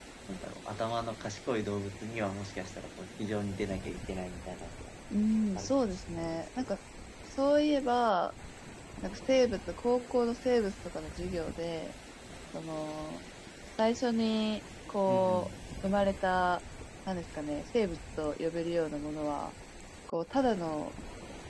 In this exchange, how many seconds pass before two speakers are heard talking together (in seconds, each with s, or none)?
5.5 s